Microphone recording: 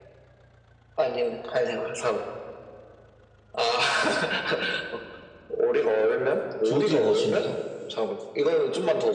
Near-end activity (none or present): present